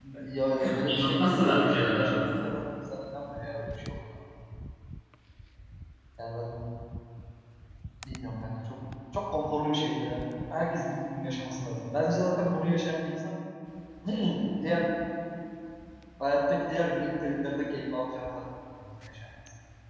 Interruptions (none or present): present